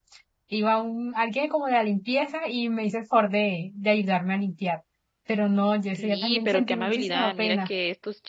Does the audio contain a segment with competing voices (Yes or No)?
Yes